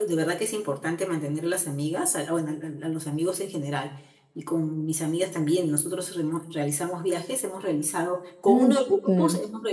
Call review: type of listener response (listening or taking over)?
listening